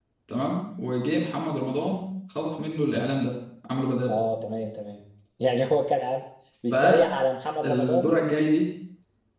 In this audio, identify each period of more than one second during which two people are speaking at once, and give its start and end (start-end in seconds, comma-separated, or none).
none